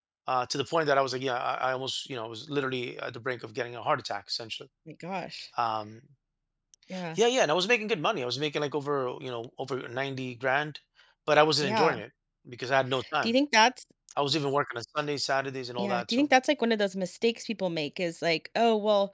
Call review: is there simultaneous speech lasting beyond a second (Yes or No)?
No